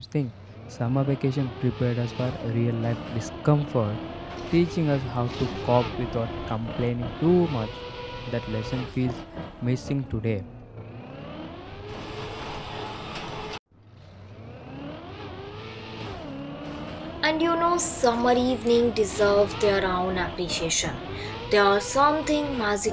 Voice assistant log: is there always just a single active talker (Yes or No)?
Yes